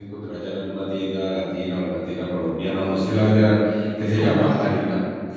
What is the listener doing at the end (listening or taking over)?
listening